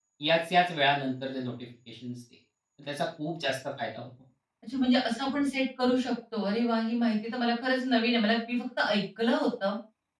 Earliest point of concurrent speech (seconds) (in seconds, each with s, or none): none